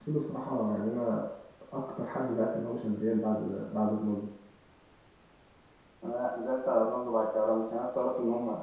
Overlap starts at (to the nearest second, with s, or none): none